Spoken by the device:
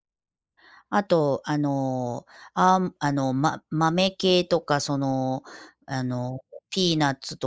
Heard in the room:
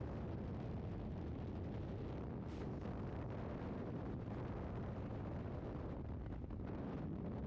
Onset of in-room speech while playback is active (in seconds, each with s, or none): none